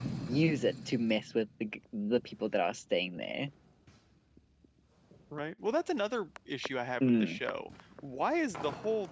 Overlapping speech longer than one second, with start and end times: none

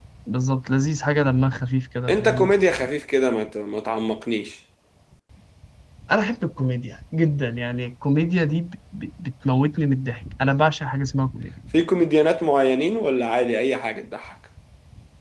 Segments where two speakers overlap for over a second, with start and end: none

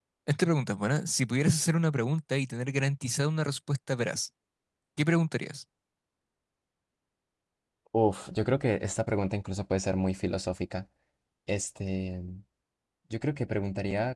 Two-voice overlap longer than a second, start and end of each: none

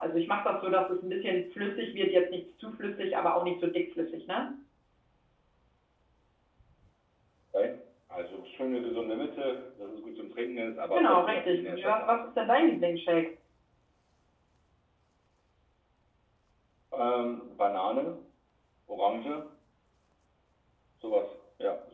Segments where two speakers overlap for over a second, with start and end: 10.9-12.2

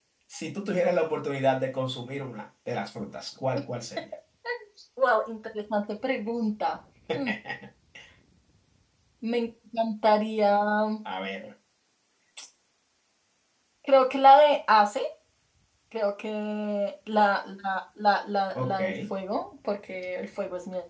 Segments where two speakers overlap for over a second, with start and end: none

